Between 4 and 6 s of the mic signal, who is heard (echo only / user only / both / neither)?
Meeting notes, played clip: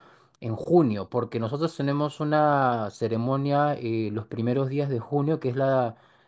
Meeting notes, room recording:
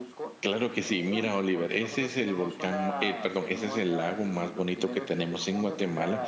both